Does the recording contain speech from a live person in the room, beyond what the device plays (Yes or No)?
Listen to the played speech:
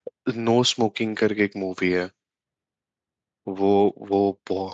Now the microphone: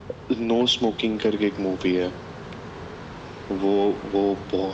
No